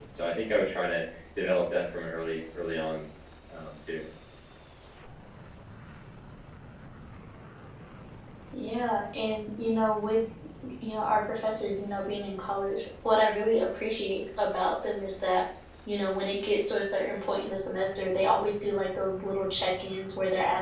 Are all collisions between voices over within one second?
Yes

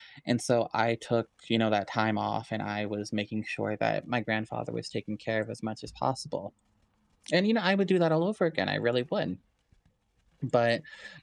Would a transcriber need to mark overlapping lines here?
No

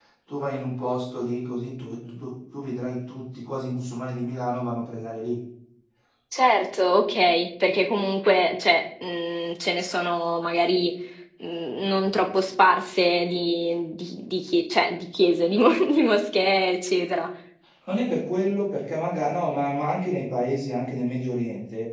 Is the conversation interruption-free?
Yes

